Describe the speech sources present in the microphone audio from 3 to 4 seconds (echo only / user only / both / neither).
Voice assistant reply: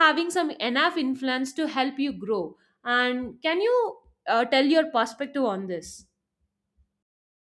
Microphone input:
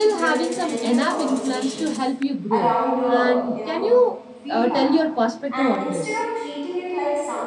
both